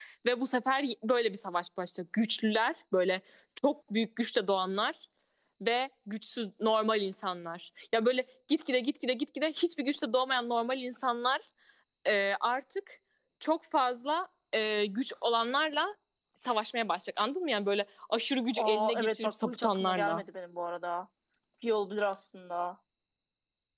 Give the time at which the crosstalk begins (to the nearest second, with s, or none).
19 s